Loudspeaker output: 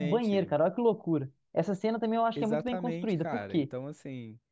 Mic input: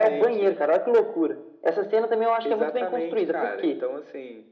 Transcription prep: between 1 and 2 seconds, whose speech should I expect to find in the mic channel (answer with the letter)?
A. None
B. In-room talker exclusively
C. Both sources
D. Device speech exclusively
D